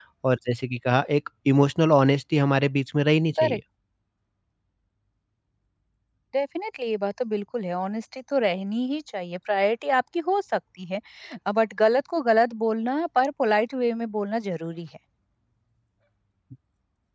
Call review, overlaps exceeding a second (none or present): none